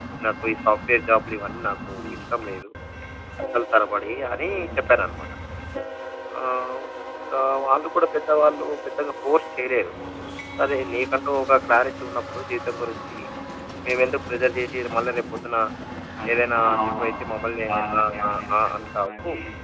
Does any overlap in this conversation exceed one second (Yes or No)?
Yes